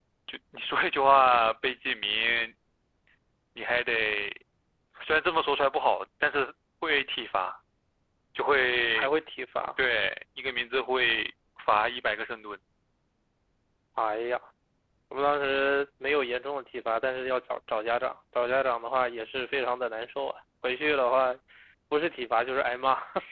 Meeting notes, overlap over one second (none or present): none